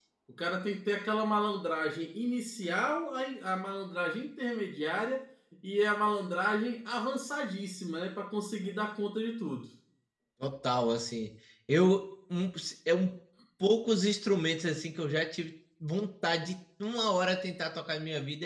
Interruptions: none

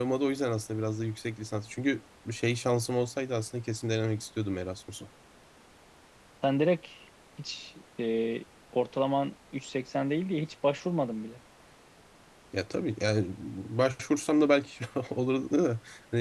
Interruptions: none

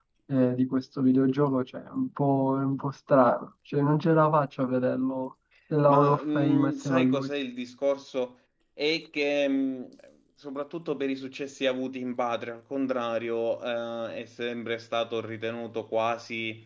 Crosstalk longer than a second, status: present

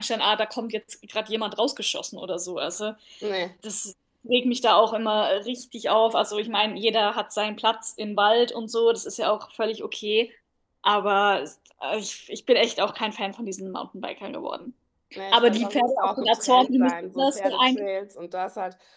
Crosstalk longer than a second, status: present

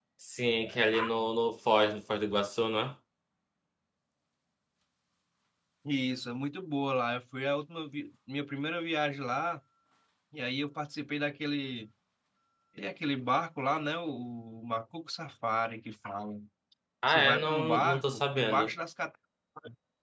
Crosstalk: present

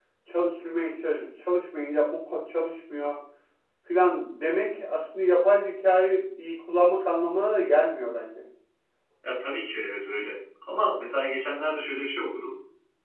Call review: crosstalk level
none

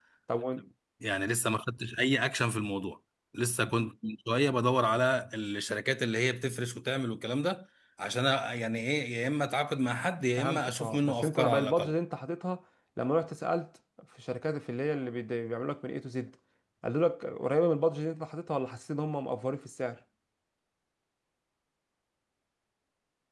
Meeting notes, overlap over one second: present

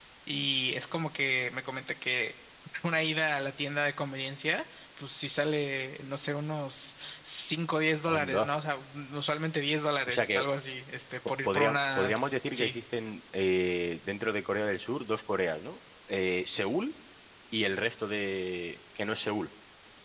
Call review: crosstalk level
present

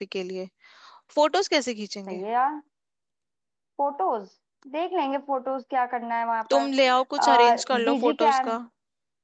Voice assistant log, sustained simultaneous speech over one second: present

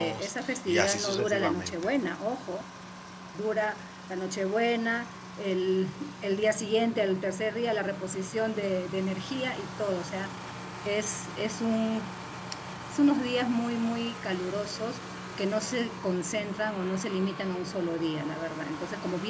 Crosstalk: present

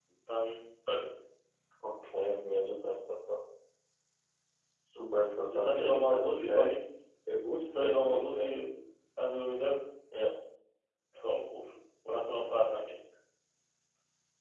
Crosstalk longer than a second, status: present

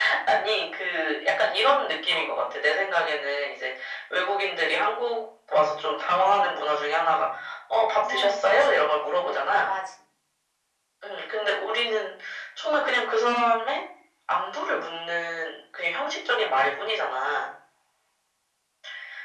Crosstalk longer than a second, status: present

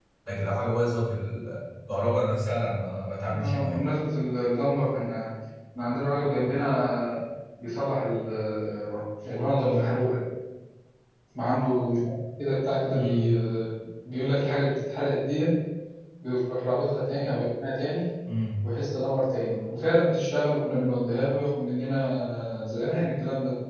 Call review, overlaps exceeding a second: none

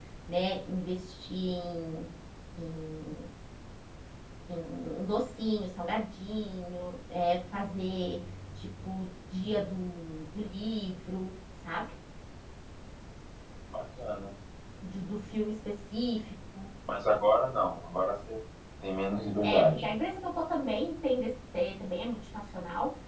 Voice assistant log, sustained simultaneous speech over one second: none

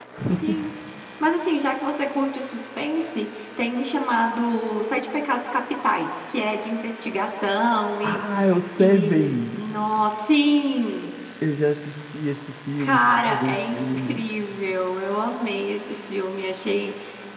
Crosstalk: present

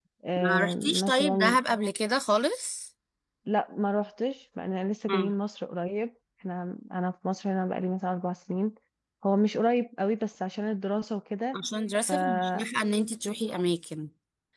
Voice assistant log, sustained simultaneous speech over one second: present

